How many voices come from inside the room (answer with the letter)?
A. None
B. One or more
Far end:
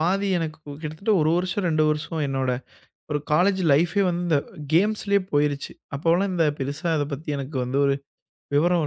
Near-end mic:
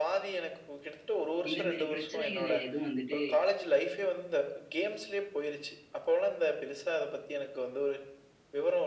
B